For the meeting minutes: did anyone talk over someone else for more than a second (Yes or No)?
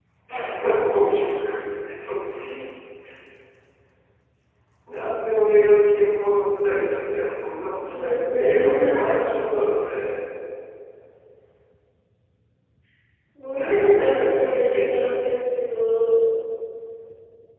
Yes